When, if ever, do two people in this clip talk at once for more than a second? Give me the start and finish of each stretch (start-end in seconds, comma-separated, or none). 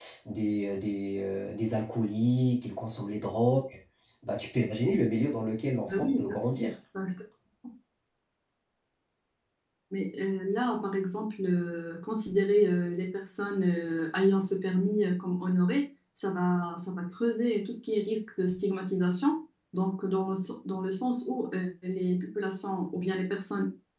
none